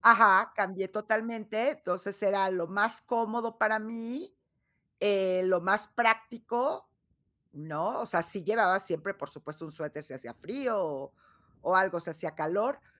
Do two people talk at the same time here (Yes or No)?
No